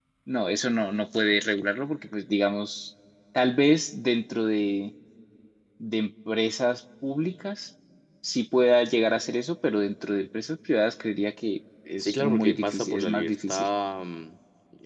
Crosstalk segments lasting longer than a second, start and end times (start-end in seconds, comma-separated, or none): 12.0-13.7